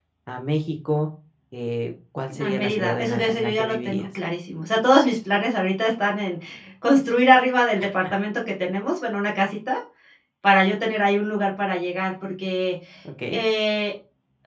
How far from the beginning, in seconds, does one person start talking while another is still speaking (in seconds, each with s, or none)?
2.3 s